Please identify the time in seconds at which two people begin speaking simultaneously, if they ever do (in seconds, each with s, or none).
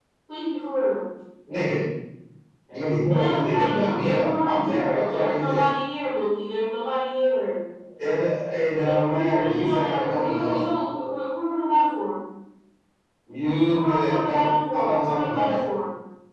3.0 s